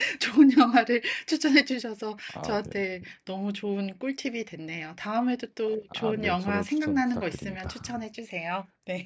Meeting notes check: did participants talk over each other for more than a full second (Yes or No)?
Yes